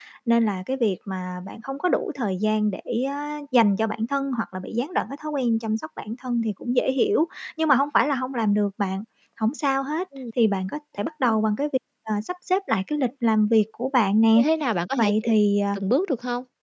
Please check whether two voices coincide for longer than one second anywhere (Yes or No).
No